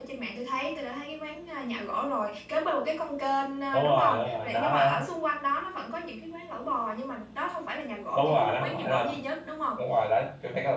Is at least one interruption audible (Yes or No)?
Yes